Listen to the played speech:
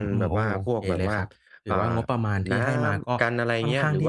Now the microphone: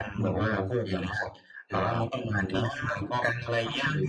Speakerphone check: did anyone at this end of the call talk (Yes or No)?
No